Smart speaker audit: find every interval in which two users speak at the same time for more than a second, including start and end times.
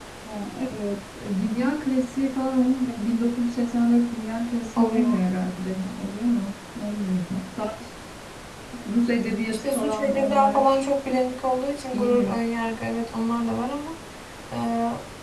9.6-10.9

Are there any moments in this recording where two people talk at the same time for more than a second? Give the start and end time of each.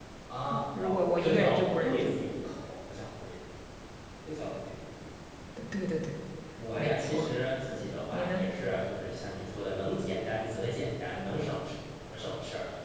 0.8-2.2

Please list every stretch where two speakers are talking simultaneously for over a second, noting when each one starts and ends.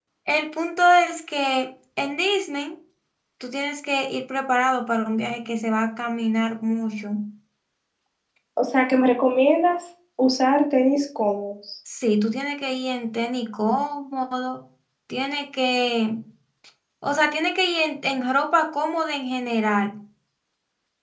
none

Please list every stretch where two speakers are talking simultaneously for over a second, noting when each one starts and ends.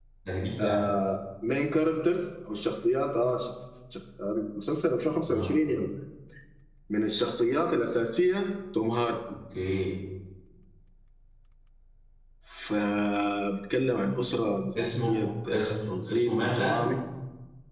15.6-16.9

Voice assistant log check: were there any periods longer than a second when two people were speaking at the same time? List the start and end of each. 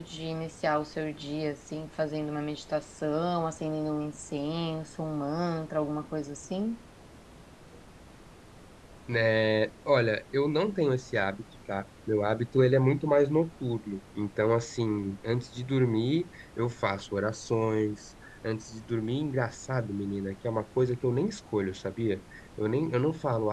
none

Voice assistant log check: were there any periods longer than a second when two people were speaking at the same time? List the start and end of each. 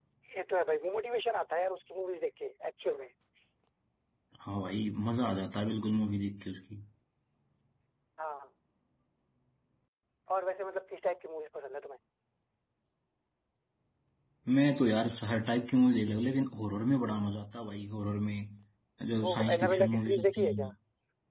19.3-20.7

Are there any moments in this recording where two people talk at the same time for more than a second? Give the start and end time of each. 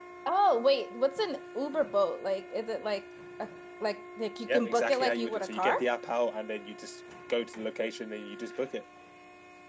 4.4-5.9

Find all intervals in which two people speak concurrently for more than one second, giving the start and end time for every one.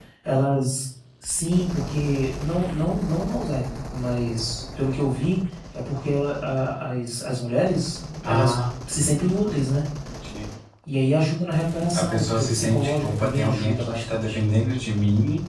12.1-14.4

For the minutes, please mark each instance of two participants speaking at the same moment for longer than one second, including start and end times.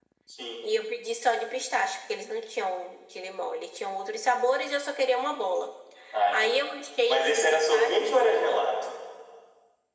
7.1-8.6

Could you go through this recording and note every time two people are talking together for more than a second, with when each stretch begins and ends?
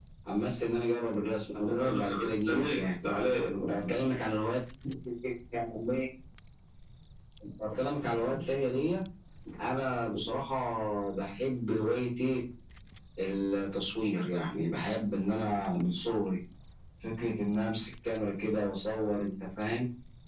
1.7-2.9

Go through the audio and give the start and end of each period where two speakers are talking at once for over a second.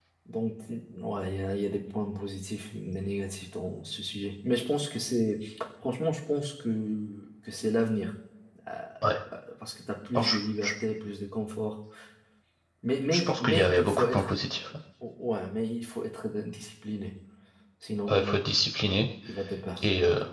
13.1-14.3

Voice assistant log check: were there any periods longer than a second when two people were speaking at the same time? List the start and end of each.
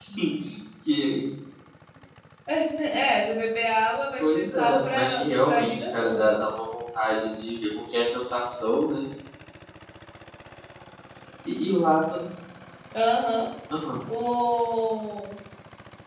4.2-6.3

